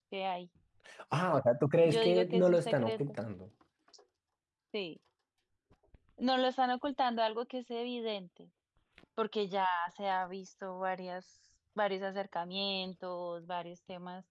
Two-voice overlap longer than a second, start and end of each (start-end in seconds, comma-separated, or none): 1.8-3.1